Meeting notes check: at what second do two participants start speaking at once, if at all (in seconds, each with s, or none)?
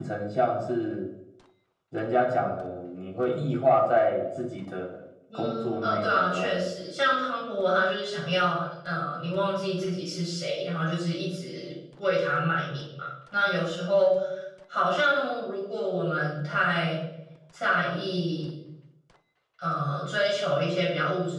5.3 s